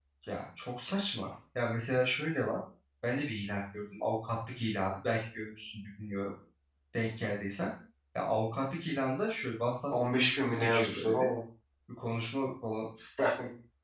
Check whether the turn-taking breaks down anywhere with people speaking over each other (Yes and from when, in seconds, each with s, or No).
Yes, from 9.9 s